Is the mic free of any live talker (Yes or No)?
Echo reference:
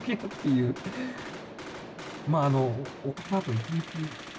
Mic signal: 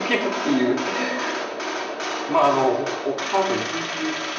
Yes